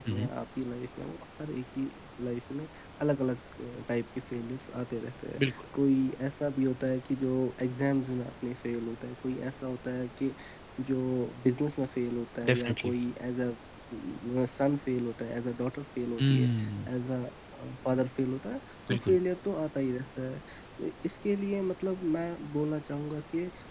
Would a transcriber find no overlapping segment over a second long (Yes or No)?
Yes